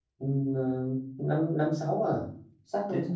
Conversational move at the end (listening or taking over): taking over